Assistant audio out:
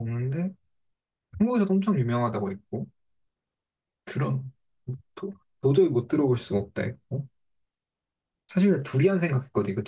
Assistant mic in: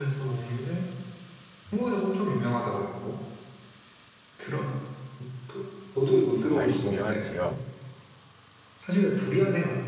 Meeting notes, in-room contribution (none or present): present